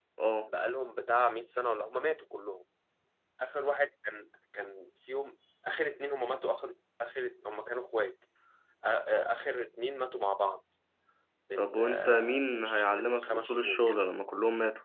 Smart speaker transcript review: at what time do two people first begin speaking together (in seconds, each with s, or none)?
11.6 s